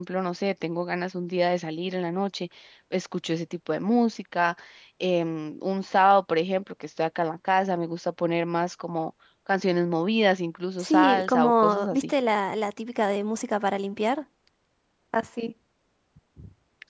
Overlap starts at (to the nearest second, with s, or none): 11 s